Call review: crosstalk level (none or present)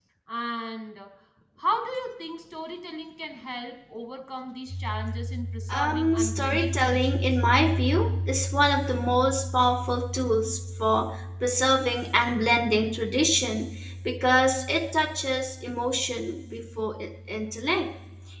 present